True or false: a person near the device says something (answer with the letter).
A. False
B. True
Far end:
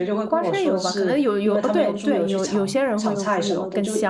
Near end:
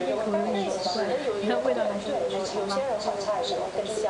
B